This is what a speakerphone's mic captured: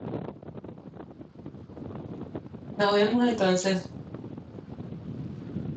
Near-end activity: present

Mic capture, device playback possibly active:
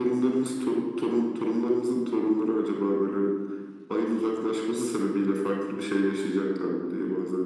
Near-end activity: none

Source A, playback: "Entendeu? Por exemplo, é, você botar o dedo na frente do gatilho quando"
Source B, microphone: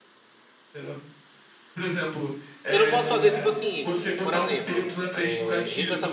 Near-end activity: present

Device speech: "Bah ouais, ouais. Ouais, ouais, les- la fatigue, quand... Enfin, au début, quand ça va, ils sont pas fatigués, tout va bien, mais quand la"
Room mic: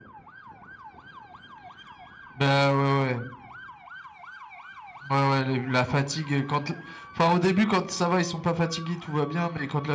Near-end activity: none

